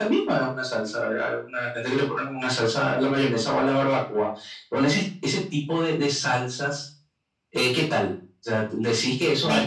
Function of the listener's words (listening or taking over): listening